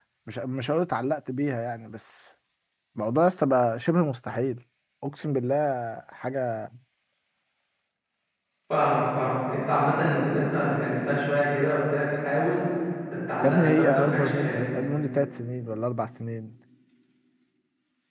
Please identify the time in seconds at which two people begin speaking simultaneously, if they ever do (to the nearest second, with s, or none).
13 s